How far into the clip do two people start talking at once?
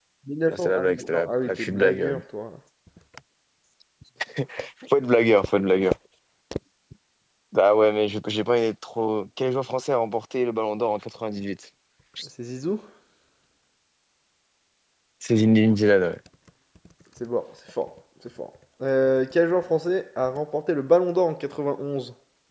0.5 s

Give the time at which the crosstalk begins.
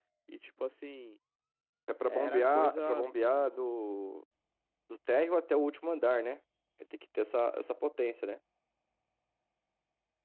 2.1 s

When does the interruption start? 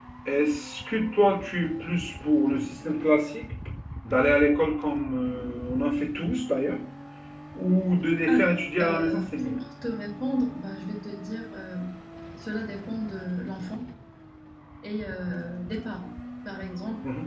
8.3 s

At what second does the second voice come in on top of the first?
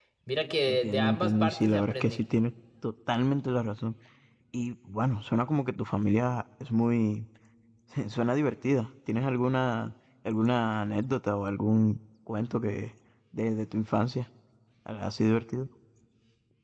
0.7 s

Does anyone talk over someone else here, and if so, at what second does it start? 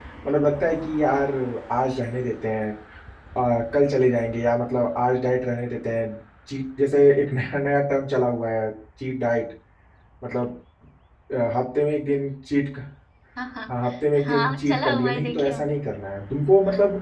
14.2 s

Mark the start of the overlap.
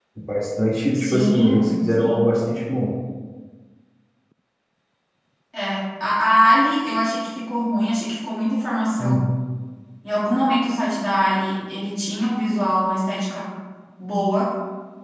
0.9 s

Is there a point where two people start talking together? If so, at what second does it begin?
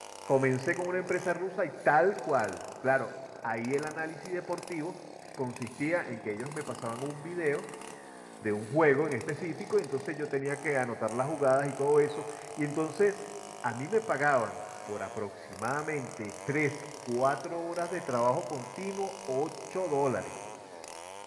none

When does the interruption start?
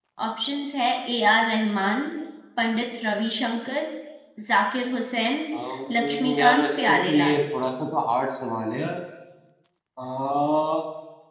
5.9 s

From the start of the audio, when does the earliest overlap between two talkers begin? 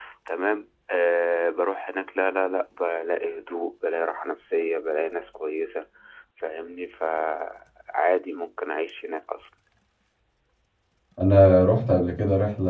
none

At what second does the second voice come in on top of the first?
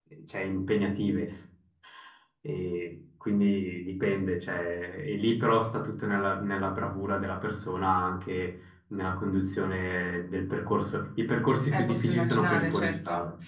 11.7 s

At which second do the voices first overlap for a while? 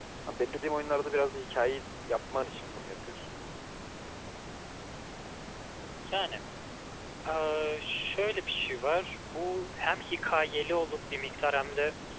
none

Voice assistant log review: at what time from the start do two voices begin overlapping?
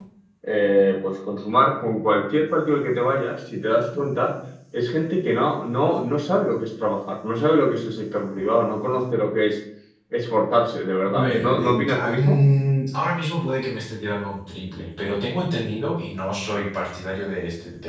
11.1 s

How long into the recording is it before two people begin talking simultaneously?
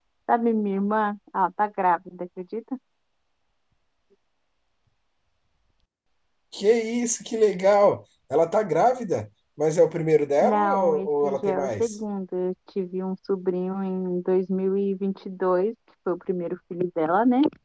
10.4 s

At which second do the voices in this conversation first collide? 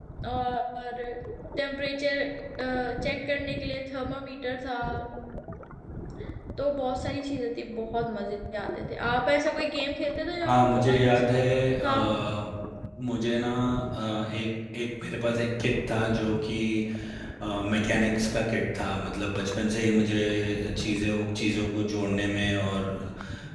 10.4 s

